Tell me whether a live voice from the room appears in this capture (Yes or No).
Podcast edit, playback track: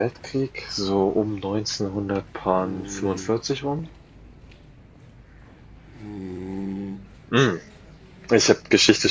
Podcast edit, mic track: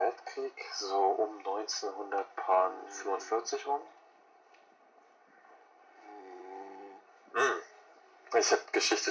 No